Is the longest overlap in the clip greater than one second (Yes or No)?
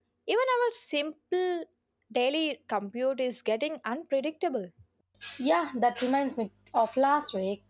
No